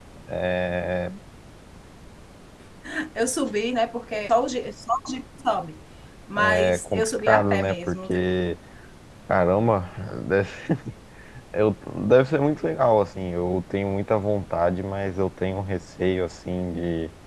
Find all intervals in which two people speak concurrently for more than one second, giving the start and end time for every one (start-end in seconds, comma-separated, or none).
6.4-8.2